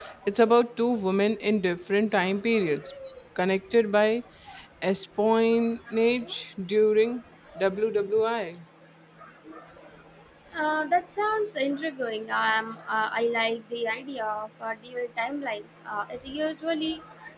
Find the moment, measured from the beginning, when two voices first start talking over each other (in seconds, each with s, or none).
none